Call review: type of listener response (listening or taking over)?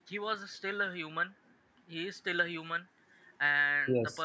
listening